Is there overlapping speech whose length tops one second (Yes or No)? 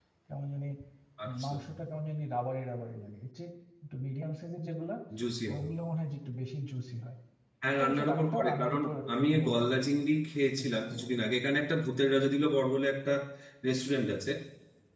Yes